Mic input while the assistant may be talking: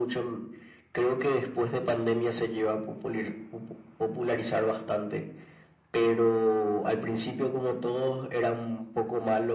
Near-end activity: none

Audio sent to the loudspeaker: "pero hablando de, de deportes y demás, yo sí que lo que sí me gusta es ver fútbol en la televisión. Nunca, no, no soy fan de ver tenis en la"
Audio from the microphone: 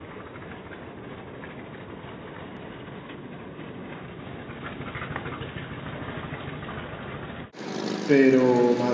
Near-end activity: present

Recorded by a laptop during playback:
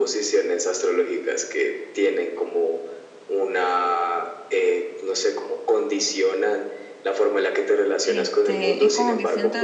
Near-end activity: present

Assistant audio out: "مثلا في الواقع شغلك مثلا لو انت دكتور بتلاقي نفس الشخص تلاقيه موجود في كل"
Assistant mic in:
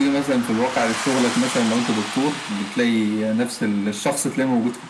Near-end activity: none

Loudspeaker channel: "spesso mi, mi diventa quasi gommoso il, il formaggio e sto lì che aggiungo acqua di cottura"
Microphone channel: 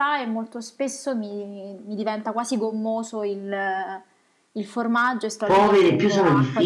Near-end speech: present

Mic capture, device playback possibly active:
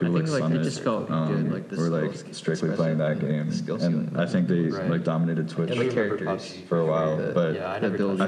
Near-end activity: present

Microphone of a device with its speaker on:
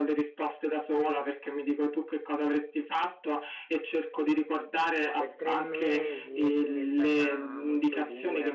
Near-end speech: present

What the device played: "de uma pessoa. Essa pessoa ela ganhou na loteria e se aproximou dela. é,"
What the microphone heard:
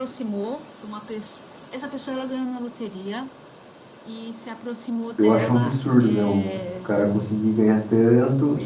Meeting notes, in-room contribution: present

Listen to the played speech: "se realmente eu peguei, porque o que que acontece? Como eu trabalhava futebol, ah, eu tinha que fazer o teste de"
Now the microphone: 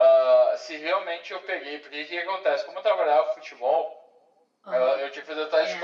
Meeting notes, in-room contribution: present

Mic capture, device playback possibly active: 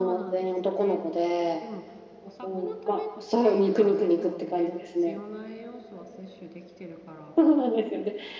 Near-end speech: present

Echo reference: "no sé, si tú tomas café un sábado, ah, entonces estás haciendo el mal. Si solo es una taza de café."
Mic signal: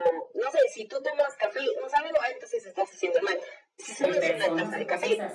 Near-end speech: present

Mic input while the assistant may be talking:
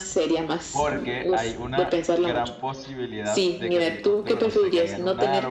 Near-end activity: present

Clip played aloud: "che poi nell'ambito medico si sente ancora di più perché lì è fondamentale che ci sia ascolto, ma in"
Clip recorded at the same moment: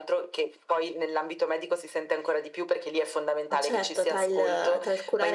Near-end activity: present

